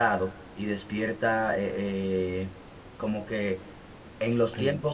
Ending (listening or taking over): listening